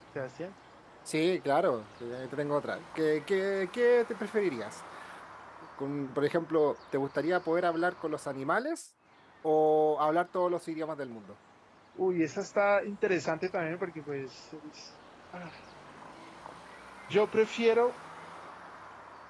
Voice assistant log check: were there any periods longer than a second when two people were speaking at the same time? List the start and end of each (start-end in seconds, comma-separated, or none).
none